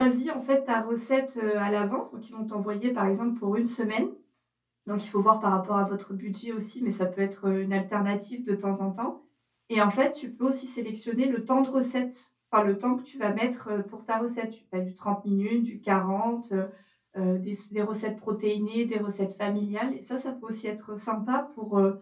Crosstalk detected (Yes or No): No